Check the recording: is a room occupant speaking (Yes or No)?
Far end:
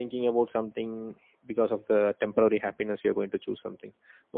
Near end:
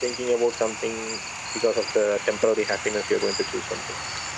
No